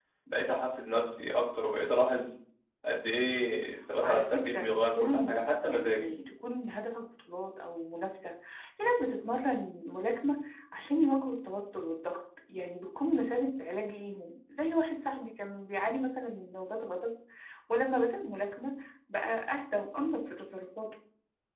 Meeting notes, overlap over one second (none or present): present